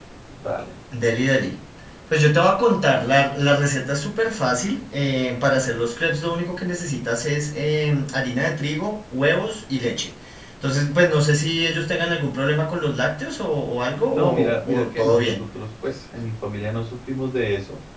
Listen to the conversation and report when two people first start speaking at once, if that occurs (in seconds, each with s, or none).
14.1 s